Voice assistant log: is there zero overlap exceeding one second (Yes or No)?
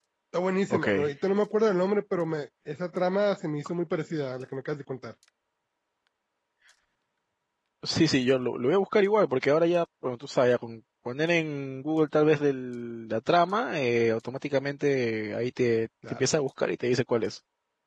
Yes